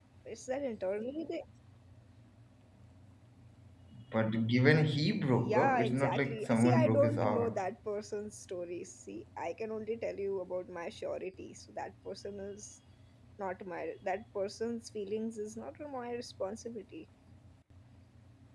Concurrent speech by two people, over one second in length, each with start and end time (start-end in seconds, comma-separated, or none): 5.4-7.6